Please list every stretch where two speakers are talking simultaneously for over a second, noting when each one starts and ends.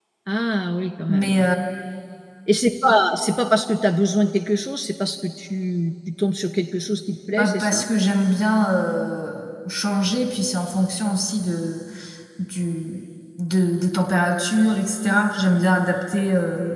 none

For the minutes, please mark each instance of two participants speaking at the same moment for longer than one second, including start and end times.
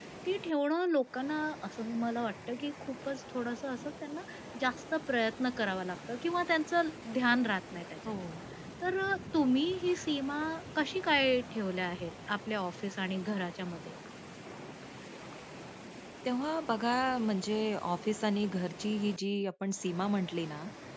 none

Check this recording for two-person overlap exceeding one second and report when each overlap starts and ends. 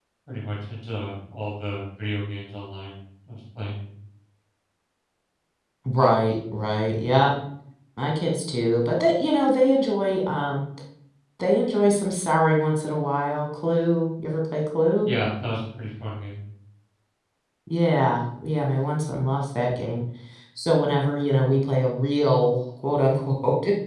none

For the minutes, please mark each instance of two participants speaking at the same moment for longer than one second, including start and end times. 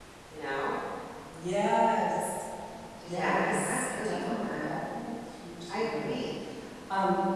3.0-4.7

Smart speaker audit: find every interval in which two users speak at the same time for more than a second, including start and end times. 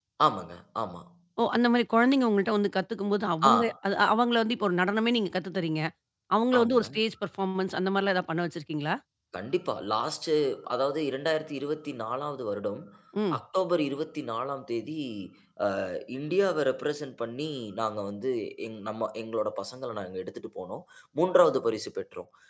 none

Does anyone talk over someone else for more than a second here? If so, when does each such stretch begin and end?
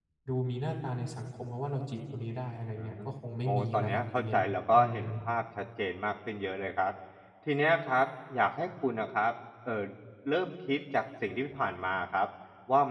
3.4-5.0

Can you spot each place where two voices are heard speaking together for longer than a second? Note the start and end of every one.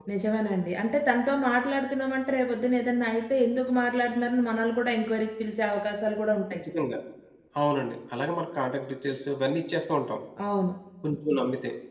none

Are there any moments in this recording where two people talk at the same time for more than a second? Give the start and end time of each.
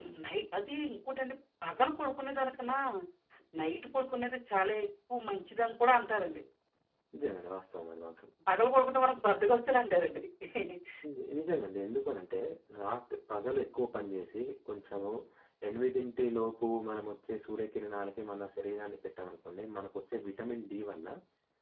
none

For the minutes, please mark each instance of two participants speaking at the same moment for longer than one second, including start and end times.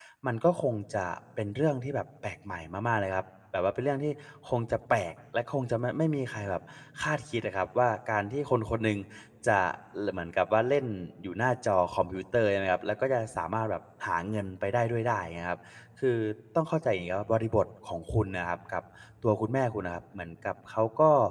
none

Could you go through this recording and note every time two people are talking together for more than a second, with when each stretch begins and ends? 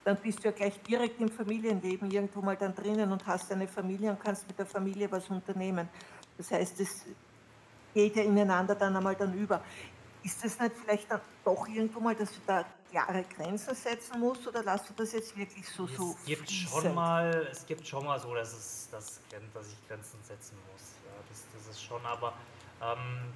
15.7-17.1

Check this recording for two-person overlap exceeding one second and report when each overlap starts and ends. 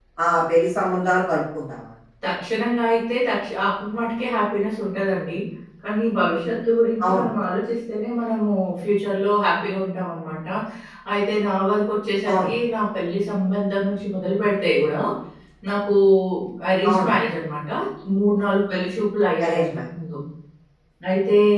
none

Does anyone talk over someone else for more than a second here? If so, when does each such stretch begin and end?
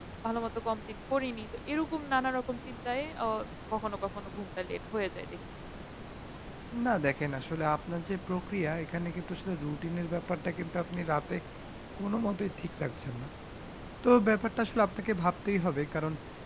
none

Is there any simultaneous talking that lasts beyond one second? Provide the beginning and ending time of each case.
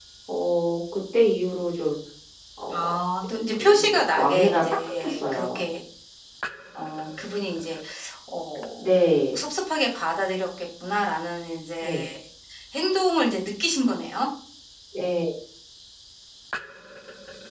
3.5-5.6

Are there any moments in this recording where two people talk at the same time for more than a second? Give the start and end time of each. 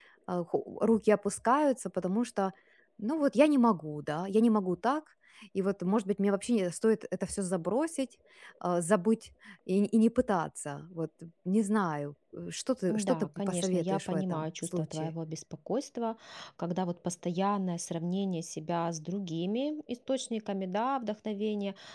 12.9-15.1

